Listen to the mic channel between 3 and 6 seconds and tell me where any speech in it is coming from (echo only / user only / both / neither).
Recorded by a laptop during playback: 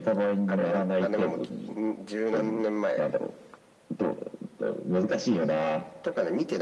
echo only